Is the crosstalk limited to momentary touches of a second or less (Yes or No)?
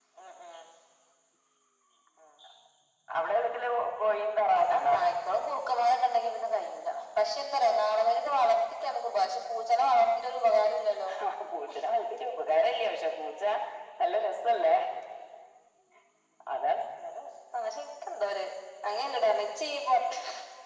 Yes